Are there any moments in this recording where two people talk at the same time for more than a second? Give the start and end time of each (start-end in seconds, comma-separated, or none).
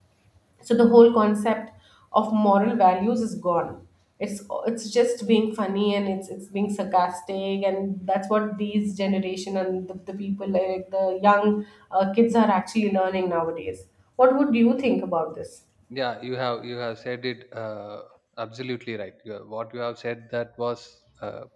none